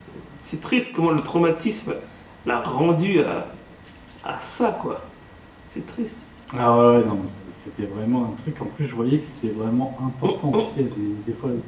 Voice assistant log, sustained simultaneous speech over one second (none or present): none